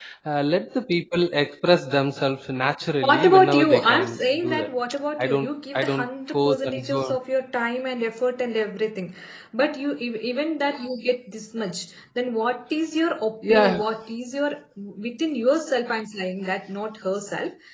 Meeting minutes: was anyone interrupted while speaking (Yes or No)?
Yes